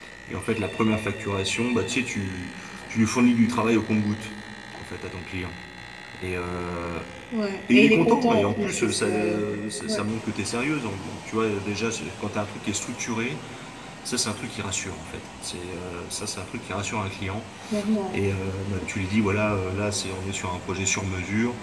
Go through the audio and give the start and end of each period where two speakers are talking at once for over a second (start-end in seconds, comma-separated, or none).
7.7-9.4